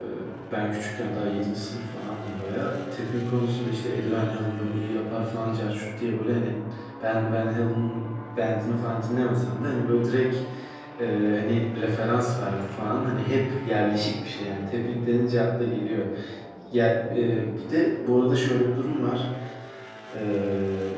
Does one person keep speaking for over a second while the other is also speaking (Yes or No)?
No